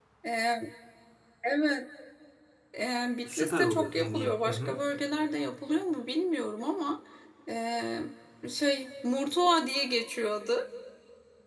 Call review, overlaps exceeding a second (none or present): present